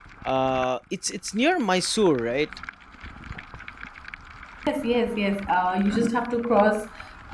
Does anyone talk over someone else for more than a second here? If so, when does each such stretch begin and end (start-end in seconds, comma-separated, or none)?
none